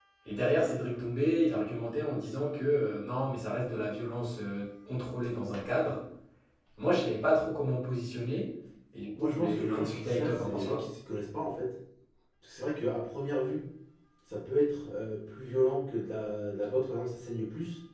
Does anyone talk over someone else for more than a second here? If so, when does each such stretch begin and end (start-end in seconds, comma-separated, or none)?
9.2-10.8